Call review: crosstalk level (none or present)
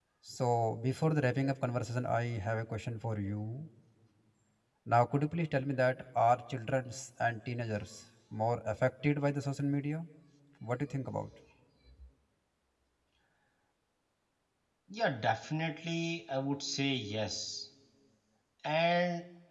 none